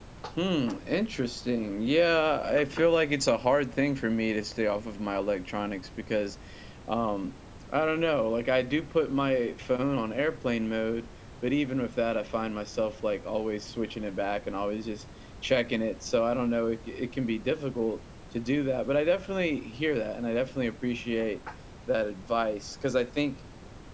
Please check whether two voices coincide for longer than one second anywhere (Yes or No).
No